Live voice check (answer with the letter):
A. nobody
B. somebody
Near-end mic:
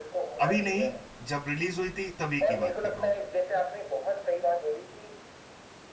B